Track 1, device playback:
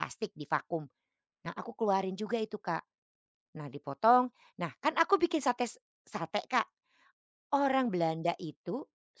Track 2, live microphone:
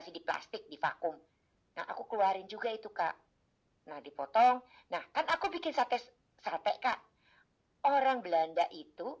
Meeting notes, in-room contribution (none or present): none